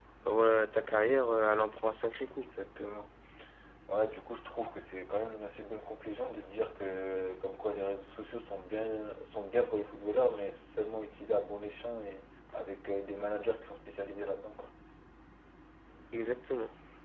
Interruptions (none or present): none